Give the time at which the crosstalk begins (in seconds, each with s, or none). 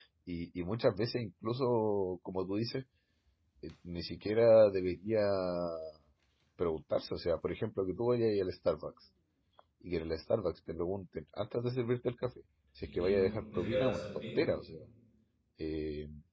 12.8 s